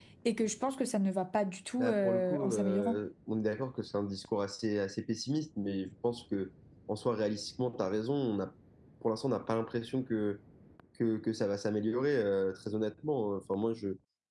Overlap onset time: 1.8 s

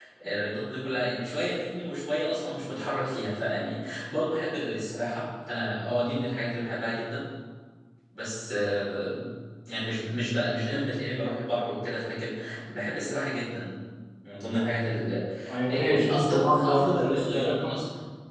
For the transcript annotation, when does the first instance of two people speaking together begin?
15.7 s

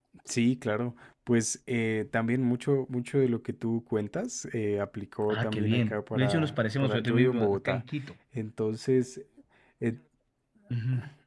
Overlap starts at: 5.3 s

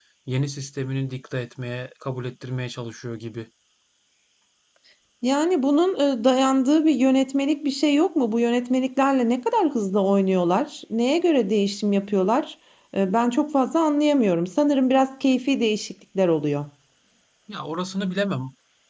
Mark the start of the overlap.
none

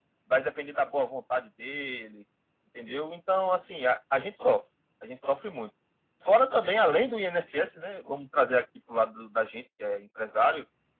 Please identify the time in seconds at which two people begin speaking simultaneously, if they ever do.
none

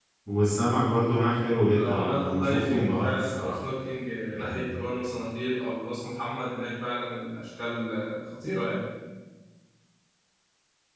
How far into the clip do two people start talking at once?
1.7 s

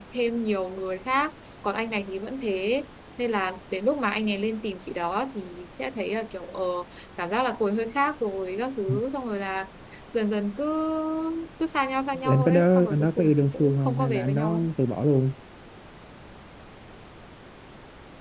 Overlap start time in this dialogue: 12.3 s

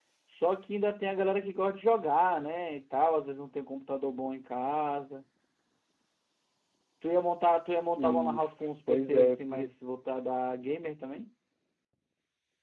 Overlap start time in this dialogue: 8.0 s

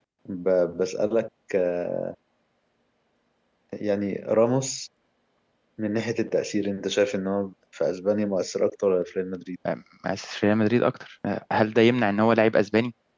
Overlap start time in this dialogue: none

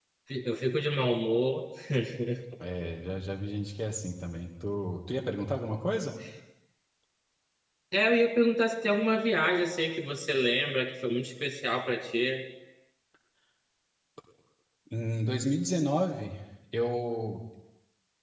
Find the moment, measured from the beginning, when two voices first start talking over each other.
none

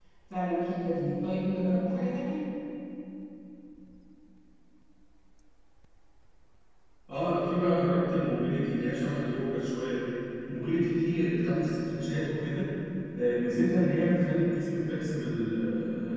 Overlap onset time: none

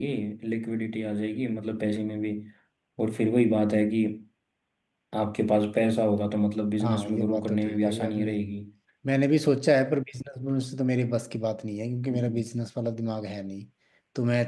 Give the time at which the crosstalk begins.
6.8 s

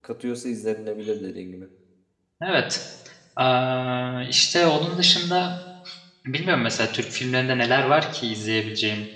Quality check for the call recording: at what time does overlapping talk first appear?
none

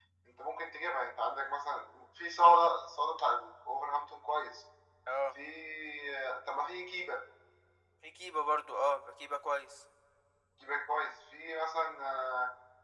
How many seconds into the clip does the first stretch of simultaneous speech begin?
none

